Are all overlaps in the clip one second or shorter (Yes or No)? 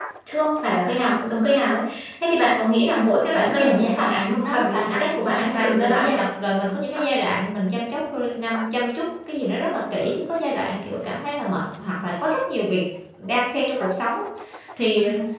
No